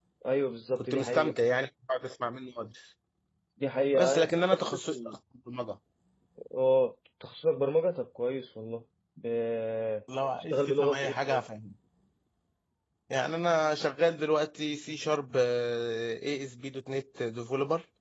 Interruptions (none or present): present